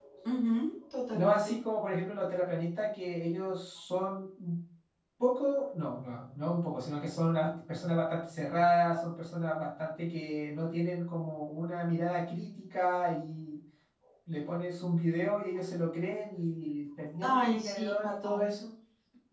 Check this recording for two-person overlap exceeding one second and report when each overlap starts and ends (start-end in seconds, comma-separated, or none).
17.2-18.5